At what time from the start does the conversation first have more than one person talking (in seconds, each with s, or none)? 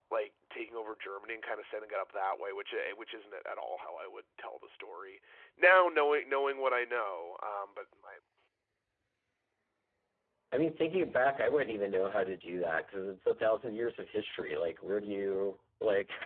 none